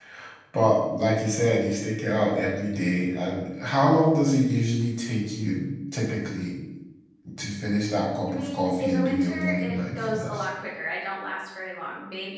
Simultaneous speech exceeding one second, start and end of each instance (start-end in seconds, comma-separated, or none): 8.3-10.4